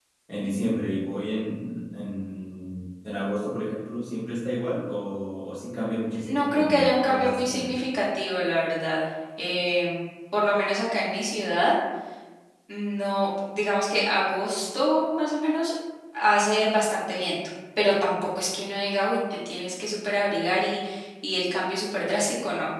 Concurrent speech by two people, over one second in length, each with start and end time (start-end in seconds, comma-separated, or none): 6.2-7.7